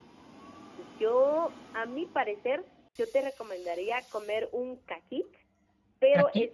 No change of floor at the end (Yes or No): Yes